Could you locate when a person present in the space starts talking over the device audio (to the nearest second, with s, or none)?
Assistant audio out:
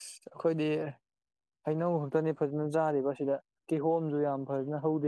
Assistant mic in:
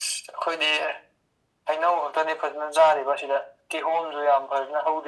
none